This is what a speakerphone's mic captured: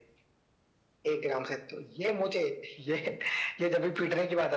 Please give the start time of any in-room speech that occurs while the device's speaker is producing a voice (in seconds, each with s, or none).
none